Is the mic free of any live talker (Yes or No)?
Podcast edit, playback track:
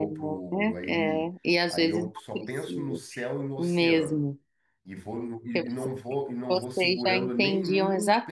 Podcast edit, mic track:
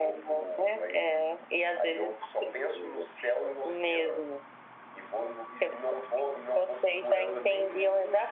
Yes